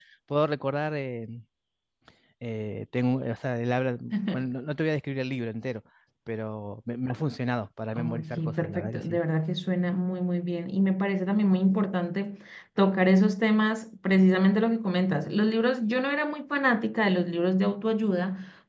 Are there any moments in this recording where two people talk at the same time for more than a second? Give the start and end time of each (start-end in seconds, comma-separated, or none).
7.9-9.2